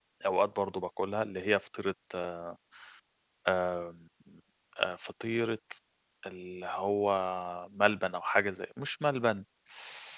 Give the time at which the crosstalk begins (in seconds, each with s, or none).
none